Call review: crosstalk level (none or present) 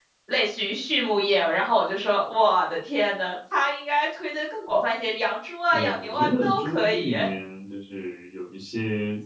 present